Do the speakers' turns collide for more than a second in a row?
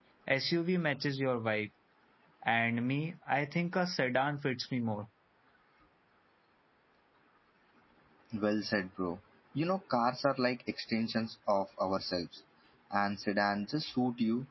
No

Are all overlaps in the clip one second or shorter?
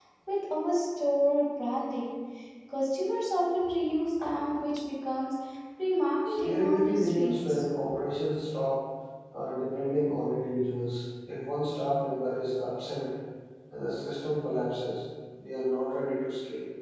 No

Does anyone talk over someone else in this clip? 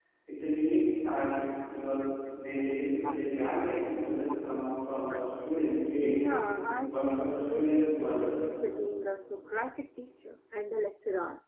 Yes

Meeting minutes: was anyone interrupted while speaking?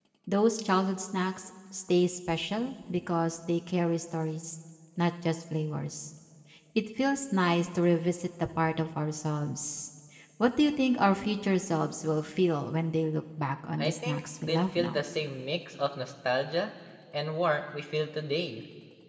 Yes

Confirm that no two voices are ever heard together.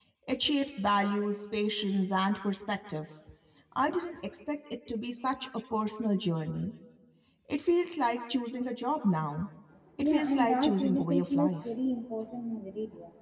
No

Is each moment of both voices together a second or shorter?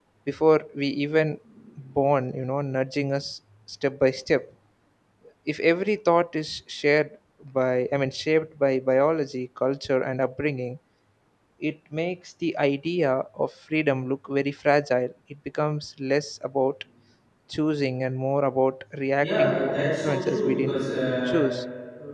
No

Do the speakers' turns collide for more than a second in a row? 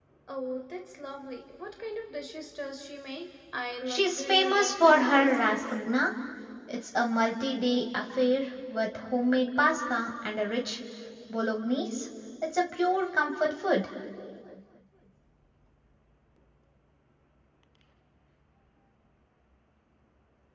Yes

